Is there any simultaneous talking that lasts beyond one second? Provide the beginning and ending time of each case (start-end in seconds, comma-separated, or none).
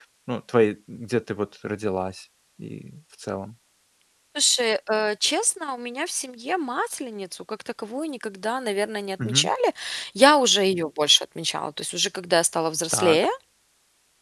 none